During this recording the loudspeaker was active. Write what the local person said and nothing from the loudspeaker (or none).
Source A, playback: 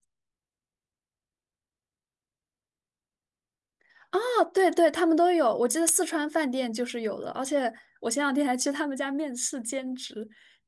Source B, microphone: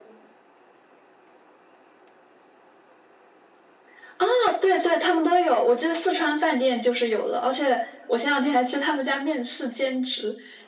none